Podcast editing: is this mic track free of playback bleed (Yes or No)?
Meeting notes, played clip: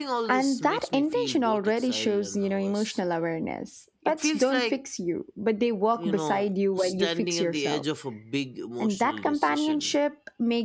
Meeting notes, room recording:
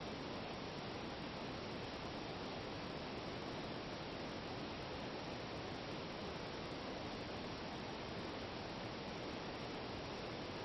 Yes